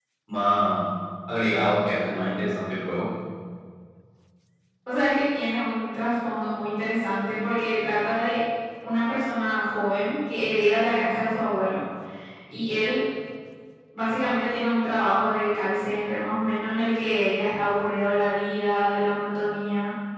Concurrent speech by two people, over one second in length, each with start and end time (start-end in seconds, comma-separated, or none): none